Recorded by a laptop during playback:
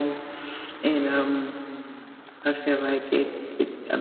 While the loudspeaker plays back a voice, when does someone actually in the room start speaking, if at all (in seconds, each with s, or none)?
none